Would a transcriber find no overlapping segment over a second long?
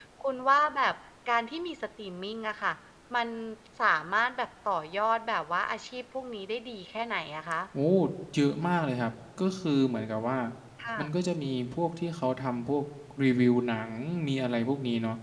Yes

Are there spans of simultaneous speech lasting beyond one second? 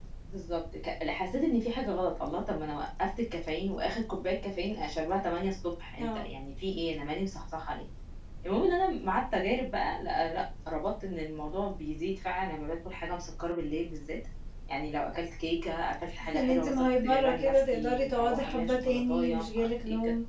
Yes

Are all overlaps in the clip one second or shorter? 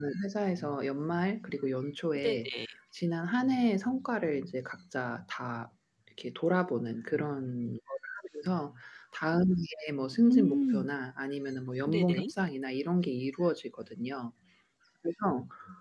Yes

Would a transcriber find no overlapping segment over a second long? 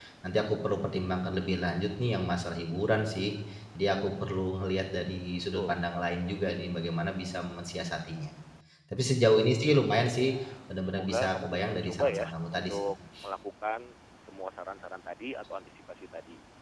No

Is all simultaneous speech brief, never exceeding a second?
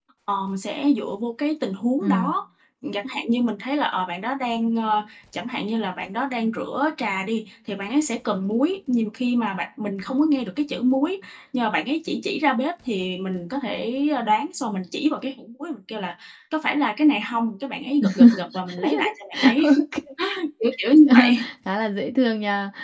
Yes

